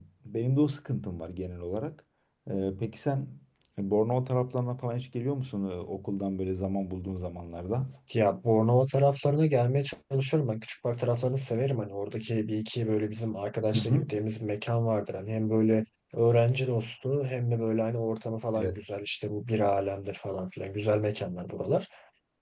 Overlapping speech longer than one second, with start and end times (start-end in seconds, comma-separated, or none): none